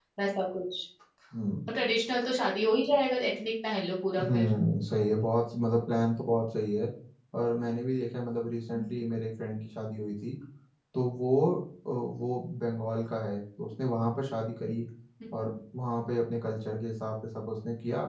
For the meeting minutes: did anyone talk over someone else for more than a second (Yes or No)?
No